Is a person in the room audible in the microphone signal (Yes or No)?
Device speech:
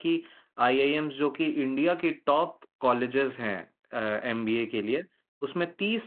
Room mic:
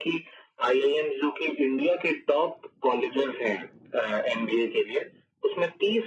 No